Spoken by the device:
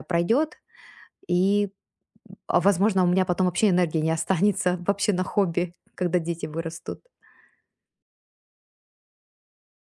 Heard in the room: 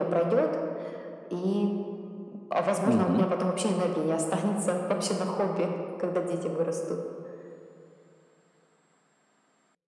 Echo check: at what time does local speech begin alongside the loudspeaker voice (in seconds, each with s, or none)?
2.8 s